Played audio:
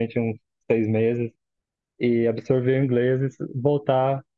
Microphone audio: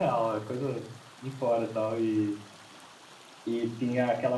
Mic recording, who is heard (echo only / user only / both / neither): user only